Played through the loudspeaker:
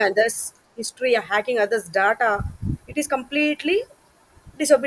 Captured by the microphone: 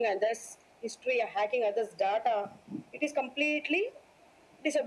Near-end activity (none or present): none